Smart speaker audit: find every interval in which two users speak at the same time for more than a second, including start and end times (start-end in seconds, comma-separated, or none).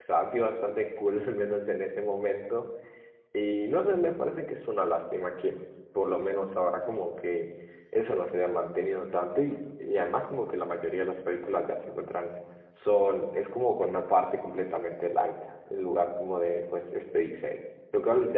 none